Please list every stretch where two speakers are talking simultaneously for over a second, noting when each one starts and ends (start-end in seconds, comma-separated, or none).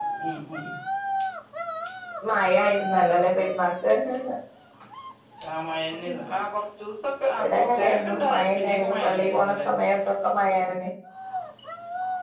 7.4-9.7